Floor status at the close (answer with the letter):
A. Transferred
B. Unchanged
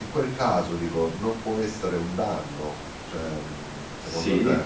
A